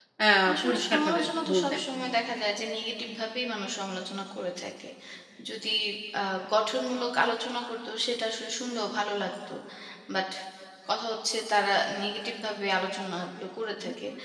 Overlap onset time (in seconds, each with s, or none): 0.5 s